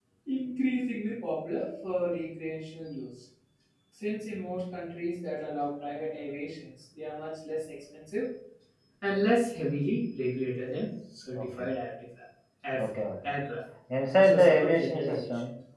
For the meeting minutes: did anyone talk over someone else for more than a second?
Yes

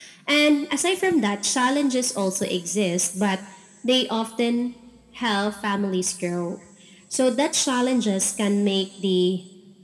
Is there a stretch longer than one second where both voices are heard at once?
No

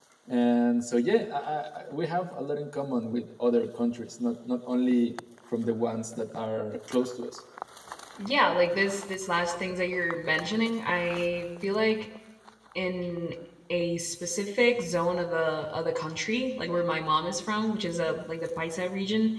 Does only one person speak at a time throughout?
Yes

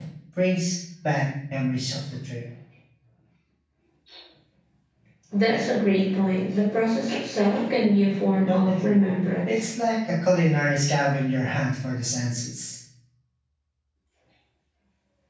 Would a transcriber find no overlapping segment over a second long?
Yes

